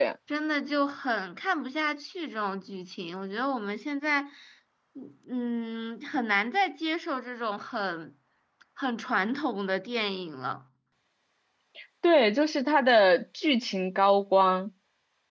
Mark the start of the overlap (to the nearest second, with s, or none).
none